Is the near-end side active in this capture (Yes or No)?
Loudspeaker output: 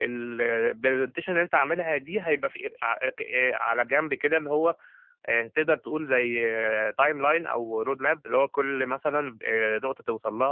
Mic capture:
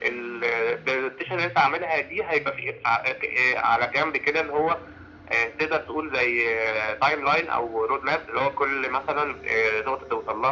No